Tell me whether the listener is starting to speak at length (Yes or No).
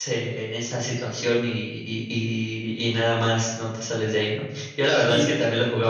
No